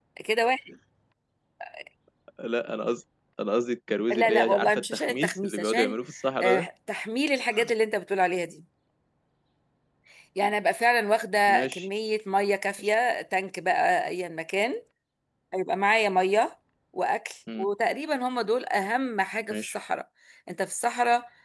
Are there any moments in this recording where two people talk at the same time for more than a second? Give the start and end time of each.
4.1-6.0

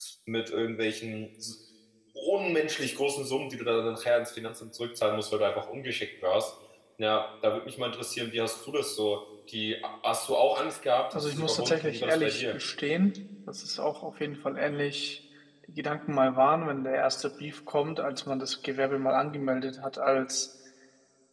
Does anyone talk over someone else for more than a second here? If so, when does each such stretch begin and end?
11.1-12.6

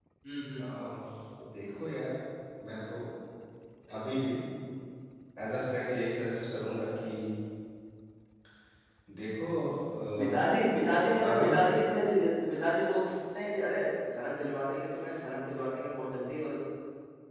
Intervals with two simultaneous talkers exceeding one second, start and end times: none

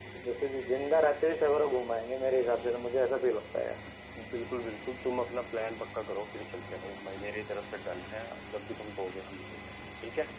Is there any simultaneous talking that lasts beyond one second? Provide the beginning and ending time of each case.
none

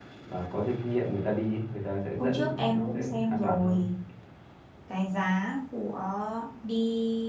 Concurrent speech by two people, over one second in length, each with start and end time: 2.2-3.8

